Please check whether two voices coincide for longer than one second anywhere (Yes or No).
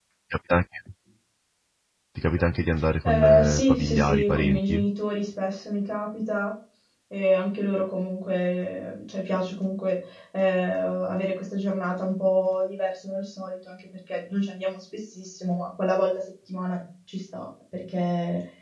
Yes